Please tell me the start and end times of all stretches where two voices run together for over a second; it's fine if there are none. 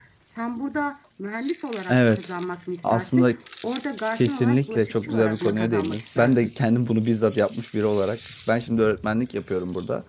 4.2-6.5

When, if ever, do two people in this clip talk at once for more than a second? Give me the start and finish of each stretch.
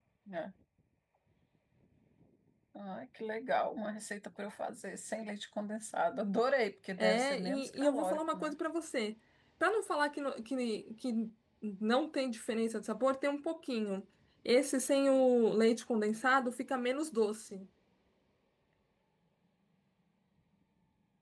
7.0-8.5

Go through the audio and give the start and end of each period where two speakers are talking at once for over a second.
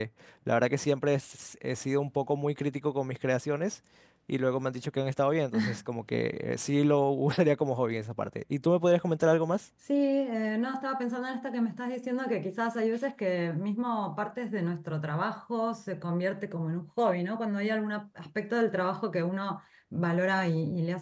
none

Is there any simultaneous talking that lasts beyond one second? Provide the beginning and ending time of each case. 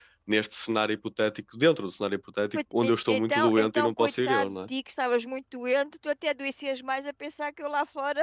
2.5-4.5

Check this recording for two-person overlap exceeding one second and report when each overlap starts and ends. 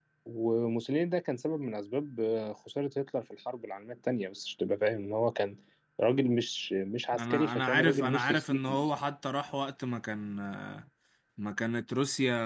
7.2-8.9

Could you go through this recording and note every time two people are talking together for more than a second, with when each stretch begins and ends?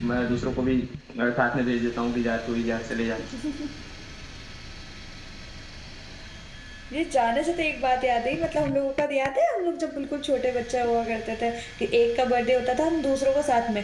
none

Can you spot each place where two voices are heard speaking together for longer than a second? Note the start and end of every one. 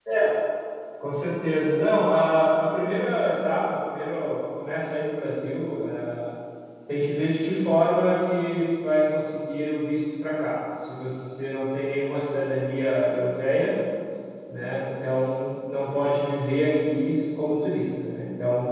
none

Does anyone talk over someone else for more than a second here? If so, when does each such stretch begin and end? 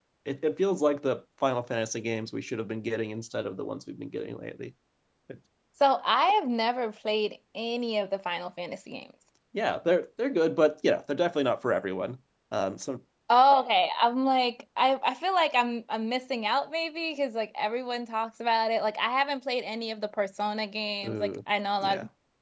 none

